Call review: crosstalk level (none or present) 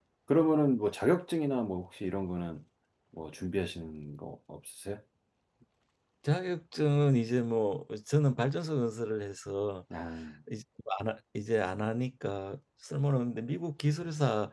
none